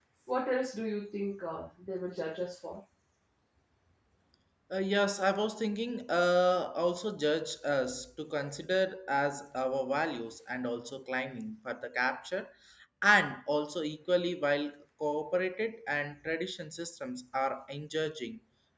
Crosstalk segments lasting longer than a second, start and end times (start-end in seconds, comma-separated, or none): none